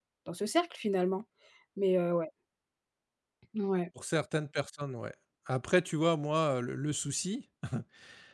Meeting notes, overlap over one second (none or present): none